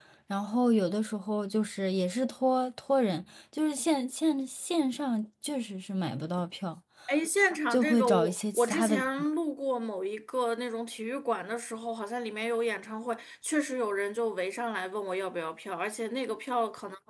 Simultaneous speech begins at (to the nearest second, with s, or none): 8 s